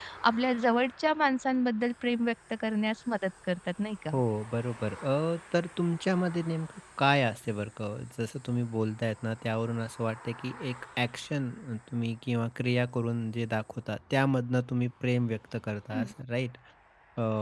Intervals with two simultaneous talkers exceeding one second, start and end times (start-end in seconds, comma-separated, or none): none